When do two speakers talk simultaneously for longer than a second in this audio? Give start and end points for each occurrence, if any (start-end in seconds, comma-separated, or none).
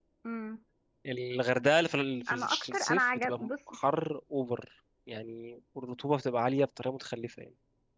2.3-3.5